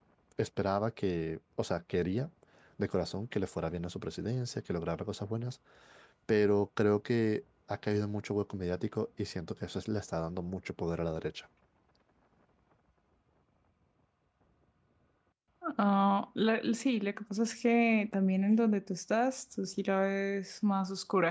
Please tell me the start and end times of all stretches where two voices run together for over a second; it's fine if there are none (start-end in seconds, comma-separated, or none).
none